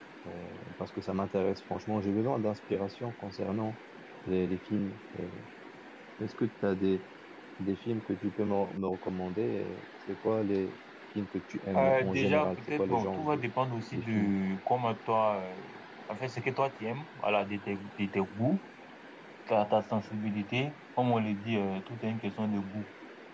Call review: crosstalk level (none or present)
present